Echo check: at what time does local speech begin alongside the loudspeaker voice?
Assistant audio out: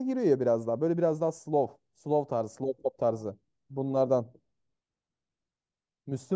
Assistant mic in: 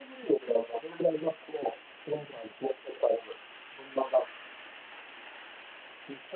none

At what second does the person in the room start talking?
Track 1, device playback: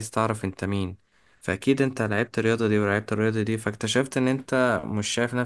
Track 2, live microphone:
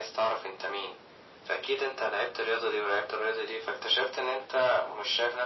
none

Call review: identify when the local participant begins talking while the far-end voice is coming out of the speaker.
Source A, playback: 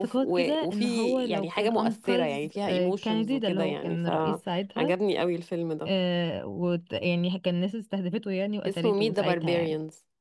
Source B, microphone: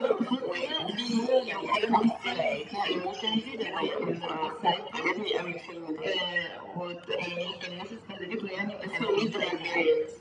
none

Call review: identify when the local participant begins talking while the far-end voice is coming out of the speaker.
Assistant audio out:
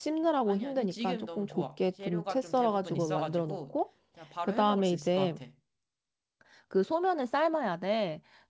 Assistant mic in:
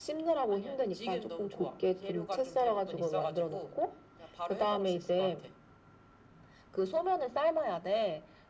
none

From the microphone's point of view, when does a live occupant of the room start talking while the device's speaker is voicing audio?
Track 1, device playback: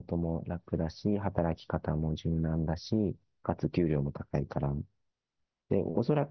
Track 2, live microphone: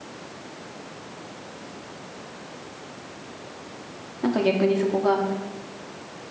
4.2 s

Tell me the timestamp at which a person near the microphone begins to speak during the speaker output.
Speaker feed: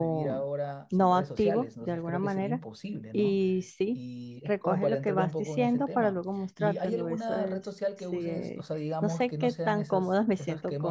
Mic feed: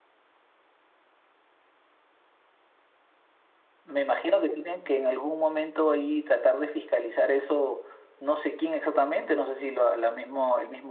3.8 s

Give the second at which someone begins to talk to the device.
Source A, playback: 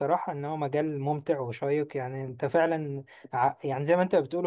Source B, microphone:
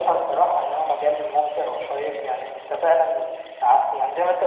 none

